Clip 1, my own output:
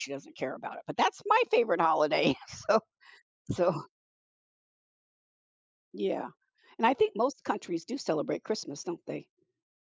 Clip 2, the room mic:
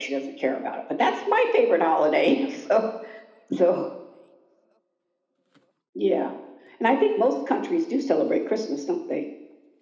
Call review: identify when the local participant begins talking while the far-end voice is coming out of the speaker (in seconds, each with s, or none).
none